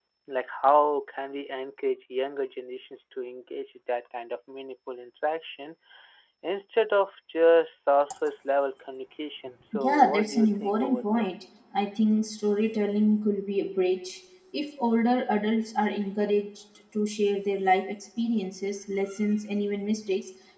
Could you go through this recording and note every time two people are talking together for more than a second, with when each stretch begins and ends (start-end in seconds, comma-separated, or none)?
9.8-11.2